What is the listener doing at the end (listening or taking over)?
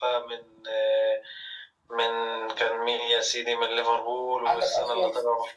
taking over